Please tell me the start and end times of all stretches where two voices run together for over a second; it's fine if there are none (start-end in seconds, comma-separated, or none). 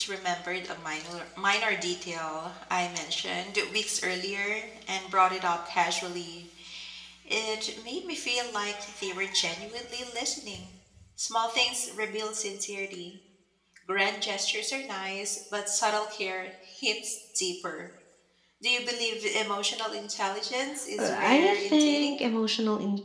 21.0-22.2